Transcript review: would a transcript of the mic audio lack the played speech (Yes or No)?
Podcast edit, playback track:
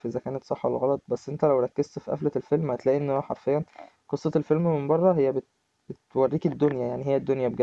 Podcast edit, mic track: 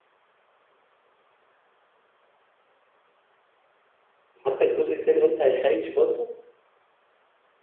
Yes